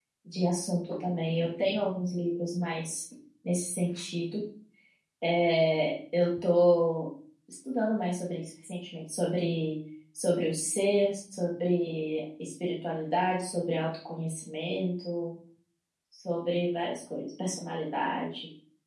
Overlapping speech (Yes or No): No